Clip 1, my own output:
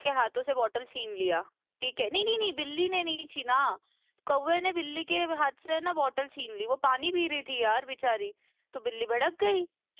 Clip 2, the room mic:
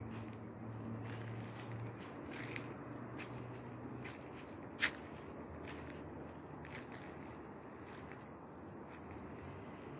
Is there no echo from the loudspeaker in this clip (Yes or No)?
Yes